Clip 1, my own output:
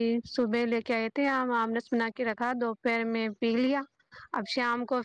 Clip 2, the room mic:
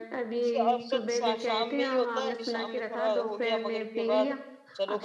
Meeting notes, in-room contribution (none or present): present